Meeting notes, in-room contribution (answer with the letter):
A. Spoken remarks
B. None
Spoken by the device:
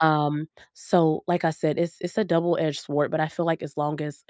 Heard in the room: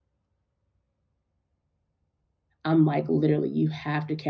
A